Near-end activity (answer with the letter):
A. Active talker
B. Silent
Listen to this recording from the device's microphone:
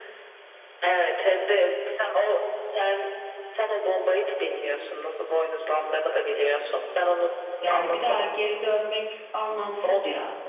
A